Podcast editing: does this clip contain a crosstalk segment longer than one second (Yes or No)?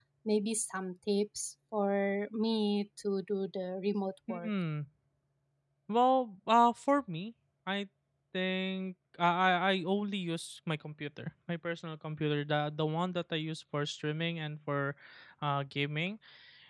No